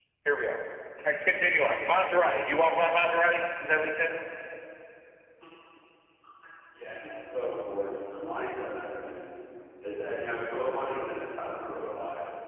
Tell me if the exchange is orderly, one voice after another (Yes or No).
Yes